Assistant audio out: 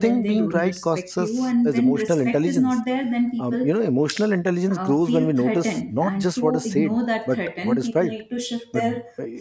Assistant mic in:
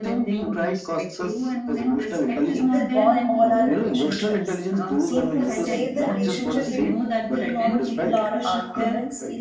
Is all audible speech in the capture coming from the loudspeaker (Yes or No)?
No